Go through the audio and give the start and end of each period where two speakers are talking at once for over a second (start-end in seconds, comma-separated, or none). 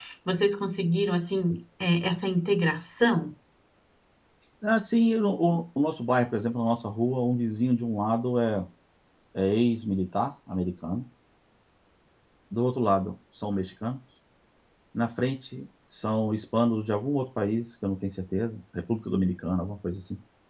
none